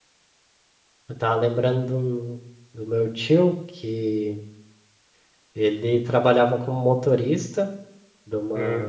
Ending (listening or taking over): listening